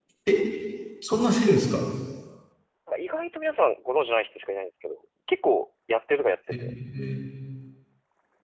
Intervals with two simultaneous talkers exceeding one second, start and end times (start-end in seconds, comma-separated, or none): none